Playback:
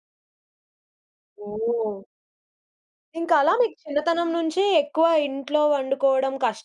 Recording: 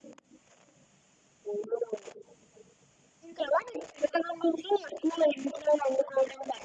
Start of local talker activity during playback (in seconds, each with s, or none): none